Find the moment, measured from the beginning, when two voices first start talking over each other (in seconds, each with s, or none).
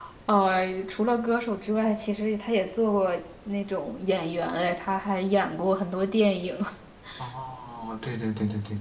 none